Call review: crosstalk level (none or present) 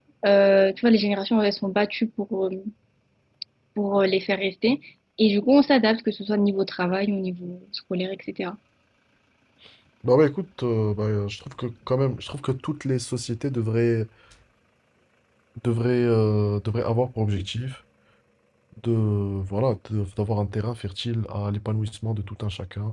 none